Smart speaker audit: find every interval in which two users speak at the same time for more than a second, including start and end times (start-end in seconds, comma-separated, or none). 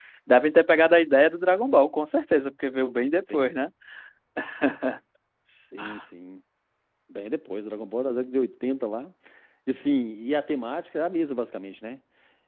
none